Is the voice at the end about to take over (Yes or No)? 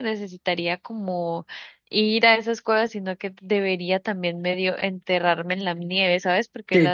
No